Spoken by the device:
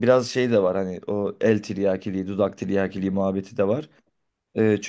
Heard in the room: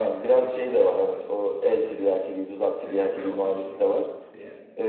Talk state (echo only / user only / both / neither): both